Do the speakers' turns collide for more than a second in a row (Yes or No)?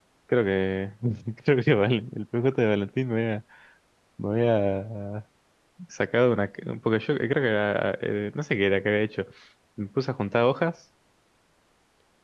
No